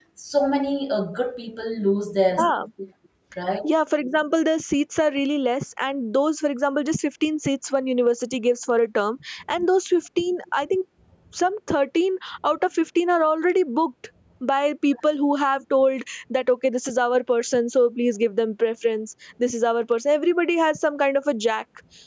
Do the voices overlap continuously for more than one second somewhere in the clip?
No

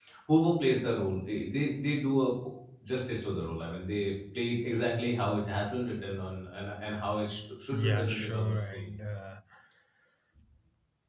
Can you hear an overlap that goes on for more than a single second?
Yes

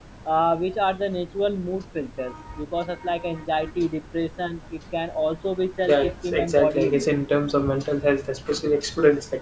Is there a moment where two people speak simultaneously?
Yes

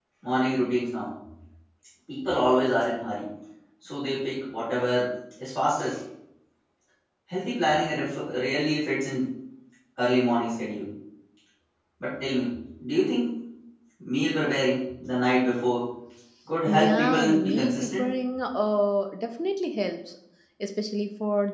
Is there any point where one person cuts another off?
Yes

